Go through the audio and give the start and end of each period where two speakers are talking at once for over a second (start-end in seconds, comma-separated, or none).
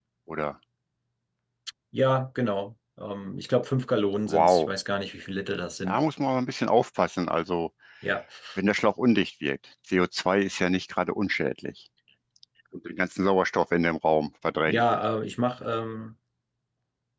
none